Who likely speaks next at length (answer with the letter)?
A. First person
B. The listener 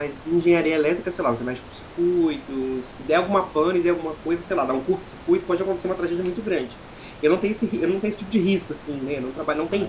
A